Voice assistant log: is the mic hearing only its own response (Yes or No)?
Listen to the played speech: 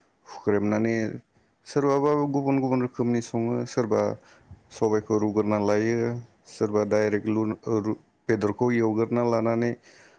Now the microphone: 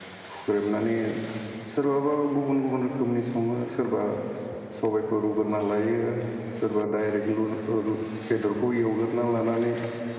Yes